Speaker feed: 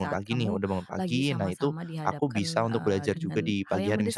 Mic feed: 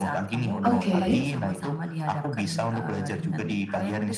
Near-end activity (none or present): present